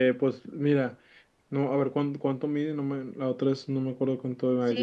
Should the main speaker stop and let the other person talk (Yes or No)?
Yes